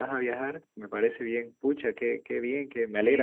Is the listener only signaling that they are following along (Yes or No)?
No